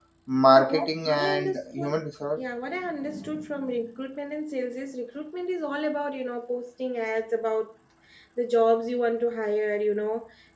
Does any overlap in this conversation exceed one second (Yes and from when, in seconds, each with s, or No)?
Yes, from 0.5 s